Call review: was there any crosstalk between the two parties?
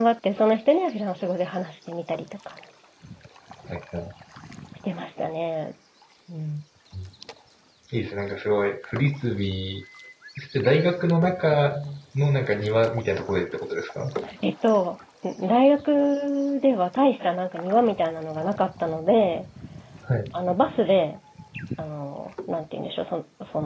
No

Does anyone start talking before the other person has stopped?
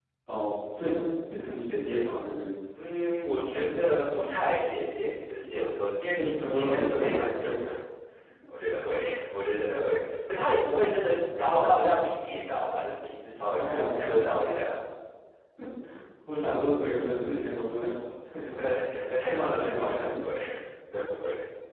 Yes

